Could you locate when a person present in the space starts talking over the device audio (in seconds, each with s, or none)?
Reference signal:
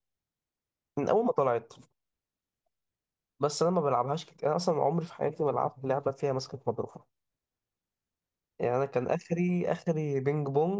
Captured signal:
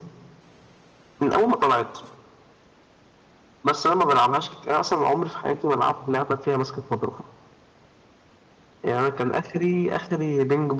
none